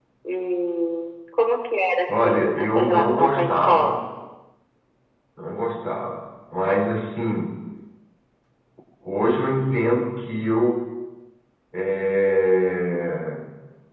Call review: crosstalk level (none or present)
present